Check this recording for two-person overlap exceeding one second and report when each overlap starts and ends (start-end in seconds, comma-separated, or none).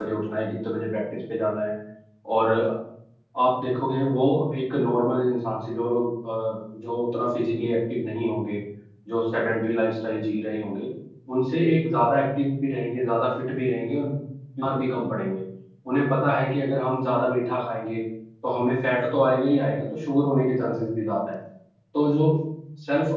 none